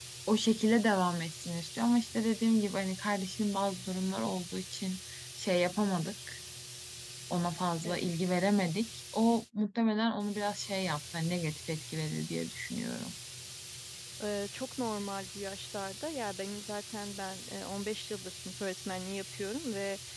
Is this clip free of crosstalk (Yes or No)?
Yes